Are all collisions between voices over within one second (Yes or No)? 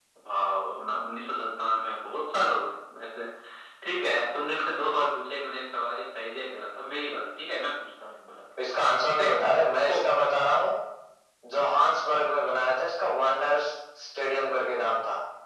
Yes